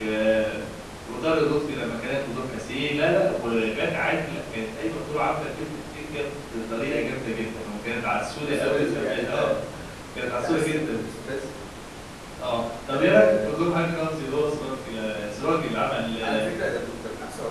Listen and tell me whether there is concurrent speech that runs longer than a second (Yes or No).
Yes